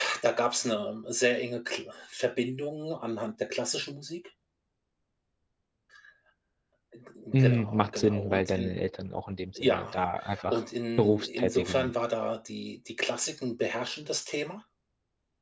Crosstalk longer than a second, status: present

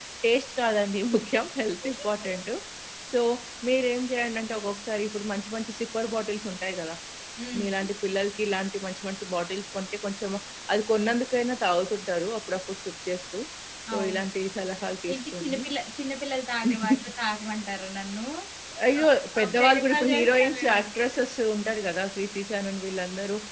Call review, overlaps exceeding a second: present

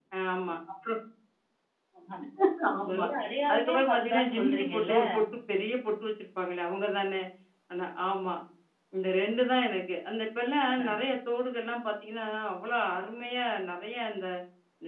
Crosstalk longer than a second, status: present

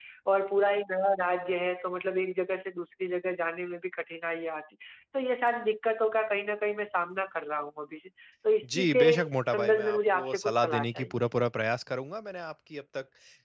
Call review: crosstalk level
present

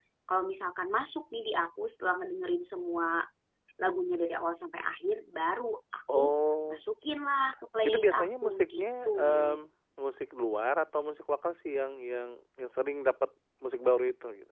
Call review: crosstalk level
present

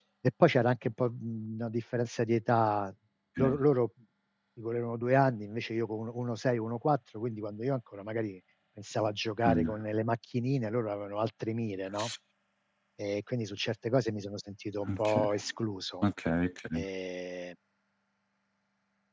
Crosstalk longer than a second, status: none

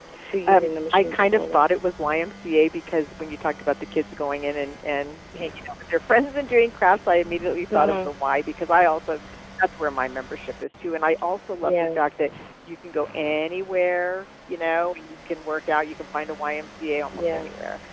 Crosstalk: present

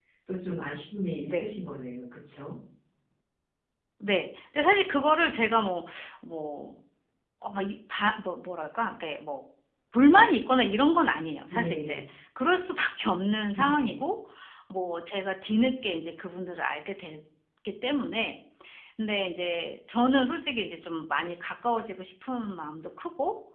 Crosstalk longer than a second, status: none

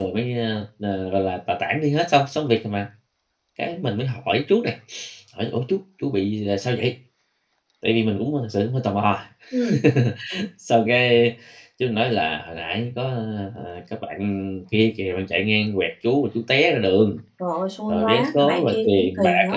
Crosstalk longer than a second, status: present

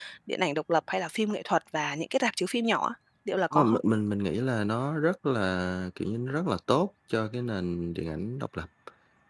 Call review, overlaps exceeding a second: none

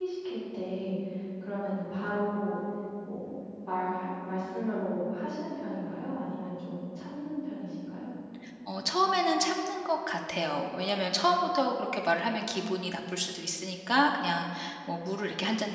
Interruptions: none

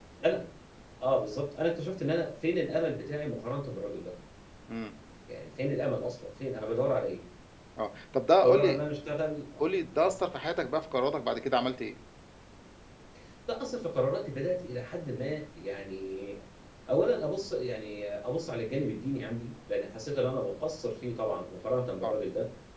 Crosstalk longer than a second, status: none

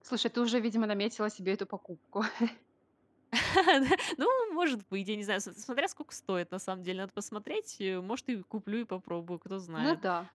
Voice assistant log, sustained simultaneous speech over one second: none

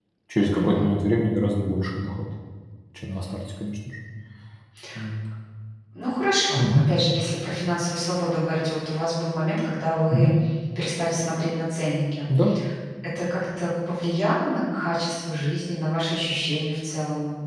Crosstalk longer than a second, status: none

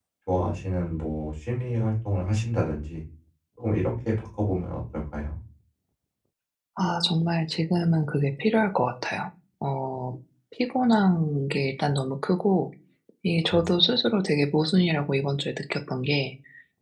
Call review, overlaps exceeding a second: none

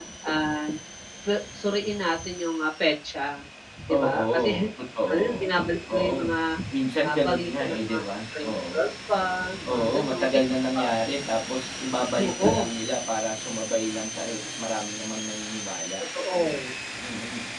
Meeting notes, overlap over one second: present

